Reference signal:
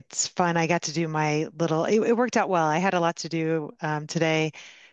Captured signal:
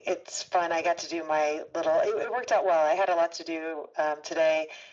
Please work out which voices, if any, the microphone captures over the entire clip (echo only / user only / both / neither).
echo only